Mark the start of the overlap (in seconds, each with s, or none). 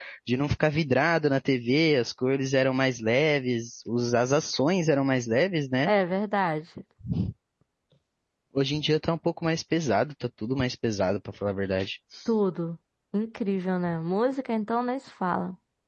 none